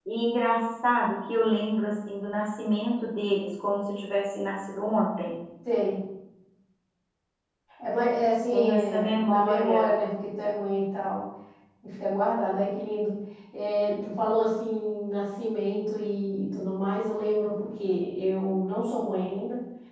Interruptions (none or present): present